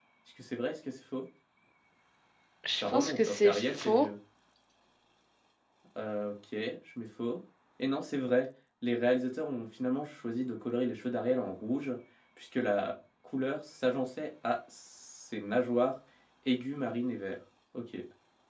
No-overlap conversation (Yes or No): No